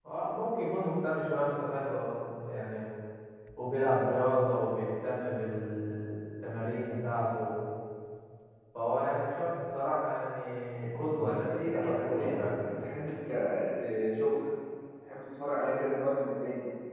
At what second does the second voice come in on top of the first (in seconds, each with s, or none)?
11.2 s